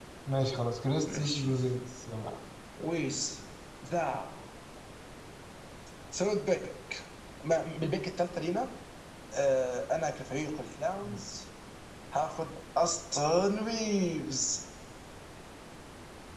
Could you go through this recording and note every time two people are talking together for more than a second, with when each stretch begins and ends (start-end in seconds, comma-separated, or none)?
none